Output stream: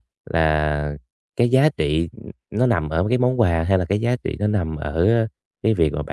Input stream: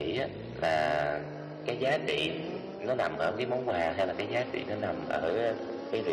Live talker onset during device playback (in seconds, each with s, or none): none